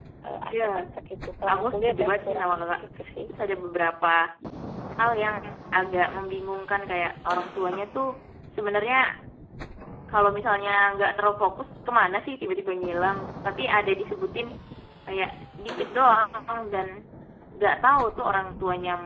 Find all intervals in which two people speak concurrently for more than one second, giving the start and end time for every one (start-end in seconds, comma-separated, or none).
1.5-2.8